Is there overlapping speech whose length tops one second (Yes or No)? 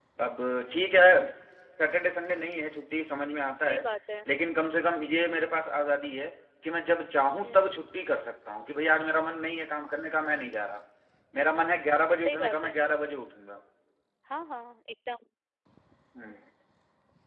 No